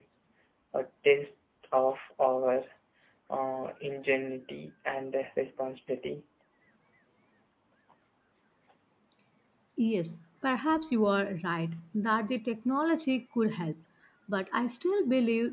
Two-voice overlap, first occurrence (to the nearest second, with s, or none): none